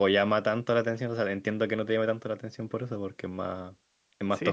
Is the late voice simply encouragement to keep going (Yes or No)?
No